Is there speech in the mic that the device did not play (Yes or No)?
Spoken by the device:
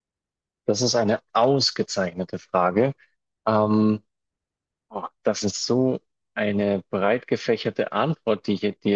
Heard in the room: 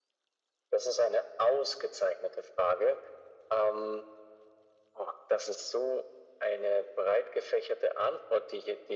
No